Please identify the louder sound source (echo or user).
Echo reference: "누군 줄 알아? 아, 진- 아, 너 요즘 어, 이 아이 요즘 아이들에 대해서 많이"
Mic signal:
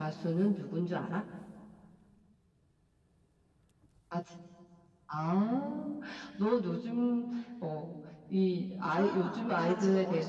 echo